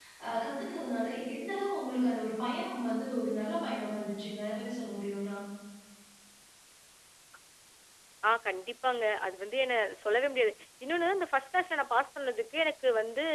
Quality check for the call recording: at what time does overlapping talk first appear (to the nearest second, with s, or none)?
none